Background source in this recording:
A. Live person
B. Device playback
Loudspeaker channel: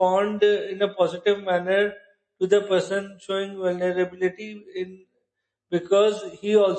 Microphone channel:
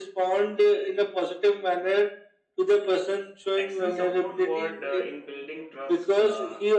A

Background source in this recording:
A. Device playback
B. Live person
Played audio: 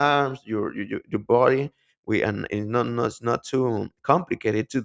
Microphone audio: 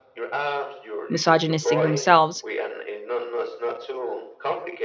A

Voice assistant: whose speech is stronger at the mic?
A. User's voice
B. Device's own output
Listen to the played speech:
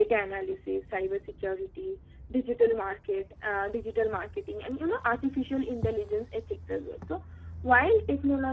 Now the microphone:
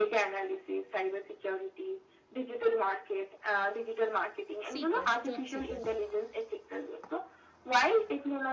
B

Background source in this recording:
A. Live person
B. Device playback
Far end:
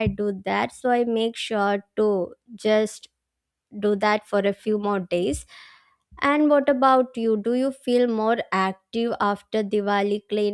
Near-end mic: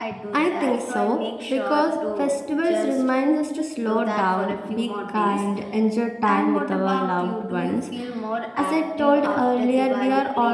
B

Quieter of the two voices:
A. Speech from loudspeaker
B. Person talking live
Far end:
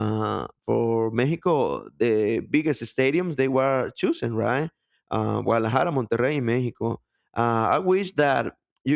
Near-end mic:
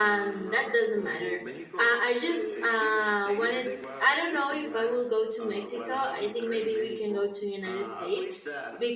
A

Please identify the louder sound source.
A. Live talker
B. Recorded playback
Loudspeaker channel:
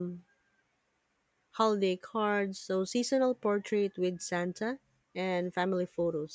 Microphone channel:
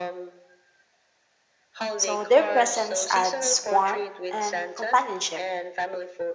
A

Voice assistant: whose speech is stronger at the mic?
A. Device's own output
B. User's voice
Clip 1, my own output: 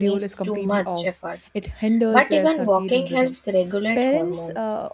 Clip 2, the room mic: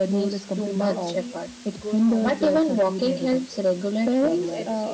A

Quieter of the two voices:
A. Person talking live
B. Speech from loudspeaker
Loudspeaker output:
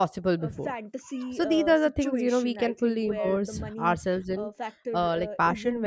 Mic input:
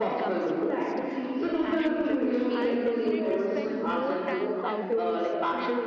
A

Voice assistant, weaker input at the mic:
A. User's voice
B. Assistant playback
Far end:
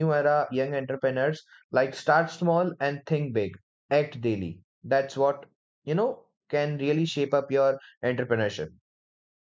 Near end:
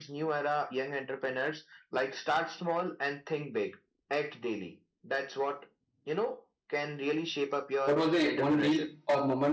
B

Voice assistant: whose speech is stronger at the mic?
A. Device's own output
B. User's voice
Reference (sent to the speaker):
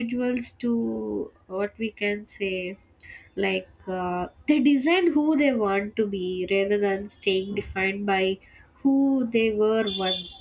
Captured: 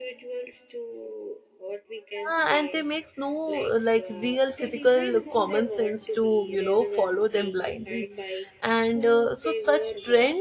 B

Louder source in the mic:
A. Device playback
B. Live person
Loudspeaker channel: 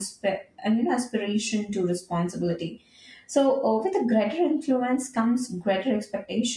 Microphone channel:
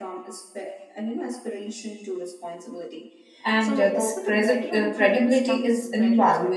B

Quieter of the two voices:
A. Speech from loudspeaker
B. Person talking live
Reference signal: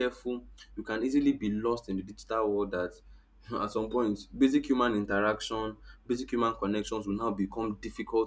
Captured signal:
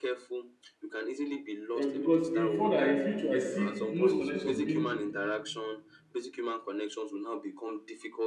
A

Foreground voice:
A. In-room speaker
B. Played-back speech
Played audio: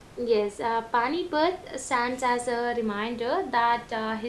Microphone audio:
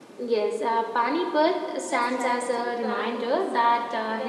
B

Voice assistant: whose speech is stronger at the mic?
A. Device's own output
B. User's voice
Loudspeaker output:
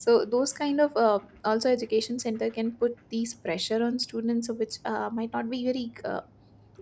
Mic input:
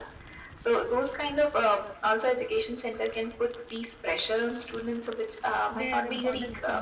A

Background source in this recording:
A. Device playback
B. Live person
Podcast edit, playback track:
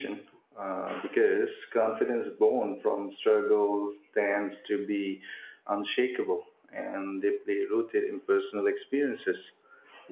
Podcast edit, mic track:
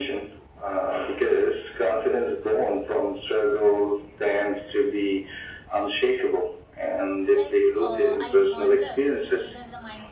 B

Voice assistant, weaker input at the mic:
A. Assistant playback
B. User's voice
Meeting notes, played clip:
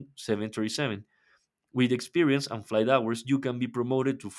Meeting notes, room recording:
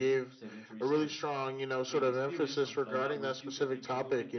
A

